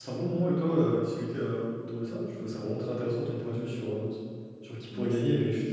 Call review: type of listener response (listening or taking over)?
listening